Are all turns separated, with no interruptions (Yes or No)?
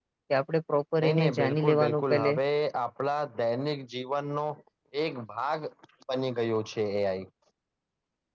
No